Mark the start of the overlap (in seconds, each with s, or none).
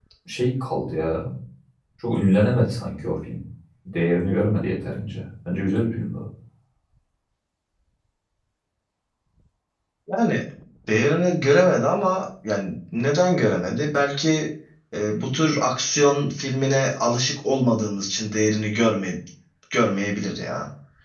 none